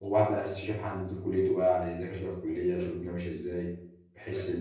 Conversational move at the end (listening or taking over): taking over